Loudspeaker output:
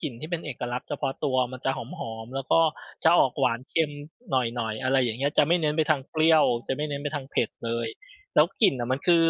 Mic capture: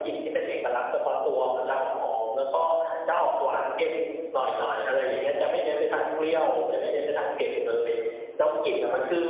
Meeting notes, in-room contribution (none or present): none